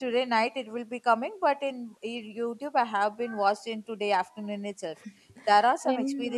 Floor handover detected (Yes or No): No